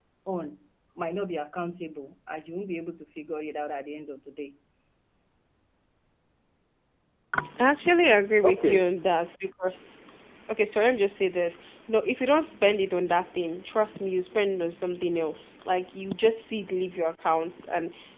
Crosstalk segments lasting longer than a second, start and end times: none

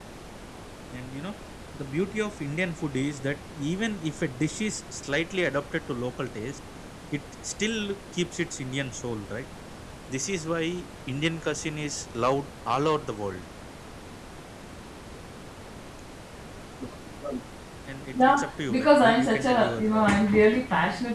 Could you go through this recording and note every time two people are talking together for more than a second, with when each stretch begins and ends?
18.2-20.6

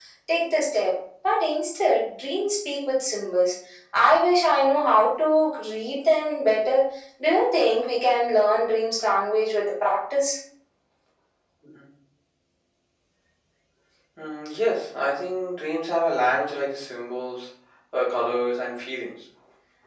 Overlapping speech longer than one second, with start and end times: none

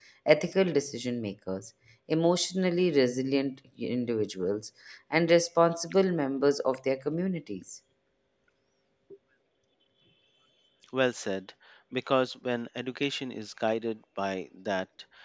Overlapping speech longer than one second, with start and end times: none

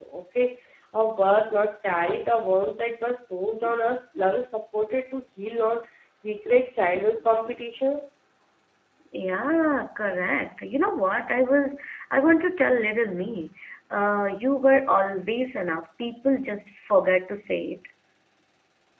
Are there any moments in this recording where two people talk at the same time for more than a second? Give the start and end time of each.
none

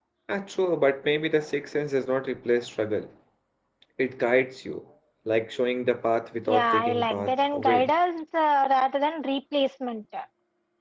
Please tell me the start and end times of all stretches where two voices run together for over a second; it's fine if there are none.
6.5-7.9

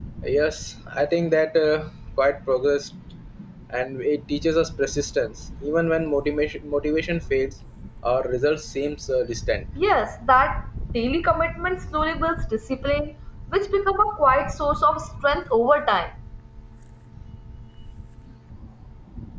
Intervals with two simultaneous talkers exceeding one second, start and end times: none

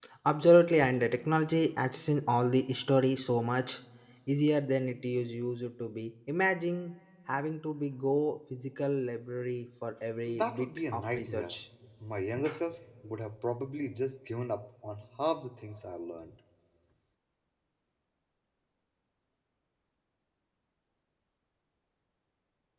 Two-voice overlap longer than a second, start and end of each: 10.3-11.6

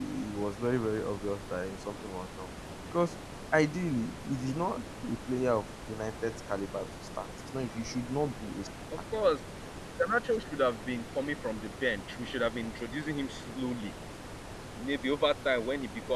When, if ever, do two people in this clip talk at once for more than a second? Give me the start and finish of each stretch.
none

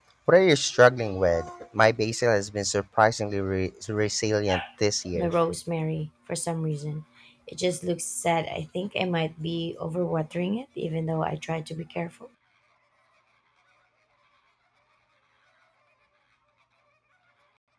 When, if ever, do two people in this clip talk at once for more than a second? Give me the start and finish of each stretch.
none

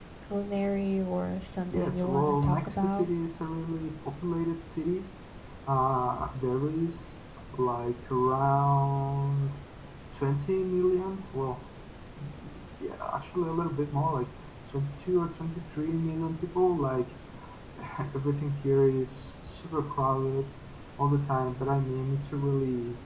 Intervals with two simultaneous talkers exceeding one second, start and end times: 1.7-3.1

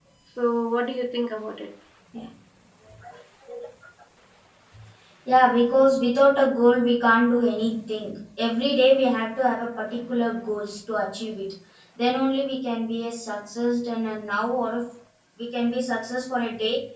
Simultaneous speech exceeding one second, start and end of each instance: none

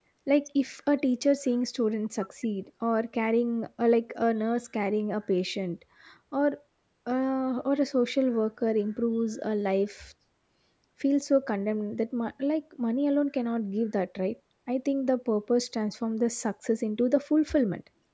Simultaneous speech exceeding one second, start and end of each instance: none

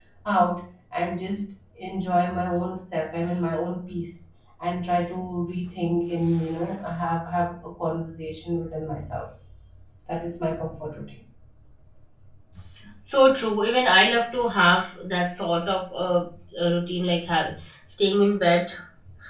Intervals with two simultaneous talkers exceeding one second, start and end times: none

